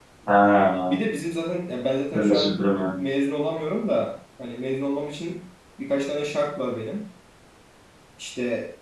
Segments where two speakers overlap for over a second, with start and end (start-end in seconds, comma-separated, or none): none